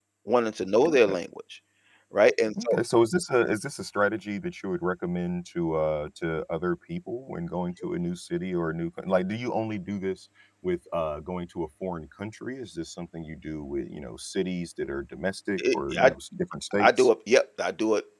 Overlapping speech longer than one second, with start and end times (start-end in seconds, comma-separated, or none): none